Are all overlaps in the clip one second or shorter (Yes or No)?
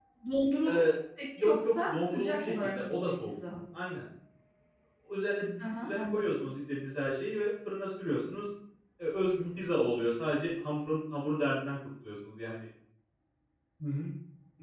No